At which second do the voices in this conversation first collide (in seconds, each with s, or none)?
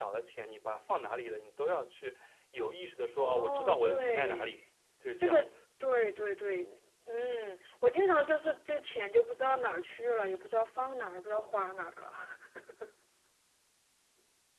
3.2 s